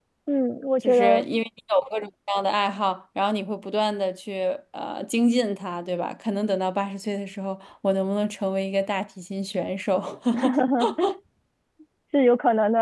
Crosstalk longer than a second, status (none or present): none